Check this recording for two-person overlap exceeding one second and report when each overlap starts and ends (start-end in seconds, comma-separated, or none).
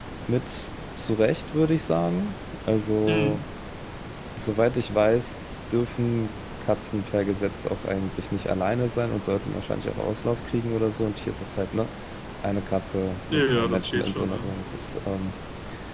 13.3-14.9